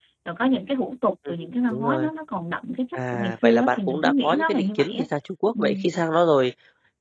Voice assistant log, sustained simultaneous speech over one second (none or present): present